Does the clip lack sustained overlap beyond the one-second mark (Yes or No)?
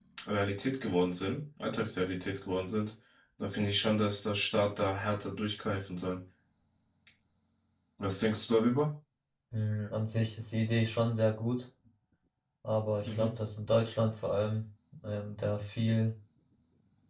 Yes